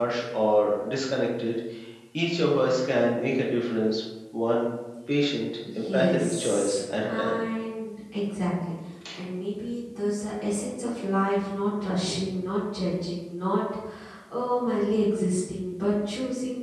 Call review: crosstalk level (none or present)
present